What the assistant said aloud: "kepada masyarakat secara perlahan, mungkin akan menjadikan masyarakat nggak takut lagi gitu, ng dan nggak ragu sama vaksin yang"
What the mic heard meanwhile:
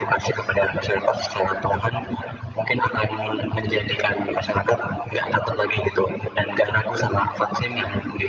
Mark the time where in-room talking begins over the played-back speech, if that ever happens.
none

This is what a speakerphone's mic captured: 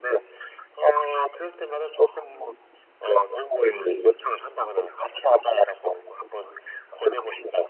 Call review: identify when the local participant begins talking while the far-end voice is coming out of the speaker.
3.7 s

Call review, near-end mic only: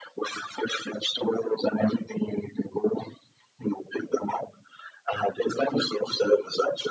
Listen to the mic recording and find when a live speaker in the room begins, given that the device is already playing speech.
none

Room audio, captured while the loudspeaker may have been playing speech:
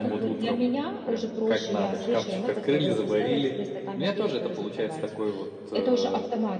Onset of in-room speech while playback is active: none

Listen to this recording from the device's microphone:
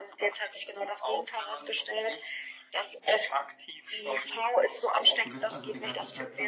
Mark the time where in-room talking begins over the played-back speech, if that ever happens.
5.2 s

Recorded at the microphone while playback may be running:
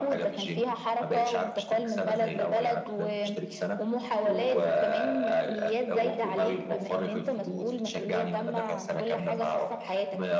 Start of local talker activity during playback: none

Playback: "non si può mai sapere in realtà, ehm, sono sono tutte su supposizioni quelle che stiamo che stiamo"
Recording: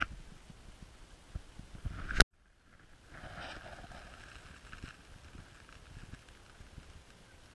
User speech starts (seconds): none

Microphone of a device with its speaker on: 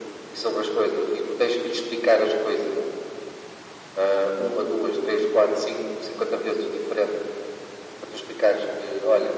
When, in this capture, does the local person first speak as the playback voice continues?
none

